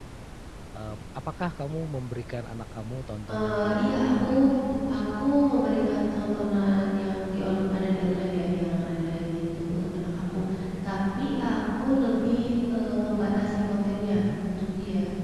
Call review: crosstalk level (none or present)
present